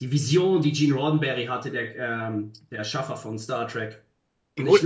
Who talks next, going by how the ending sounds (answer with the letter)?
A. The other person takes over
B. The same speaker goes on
A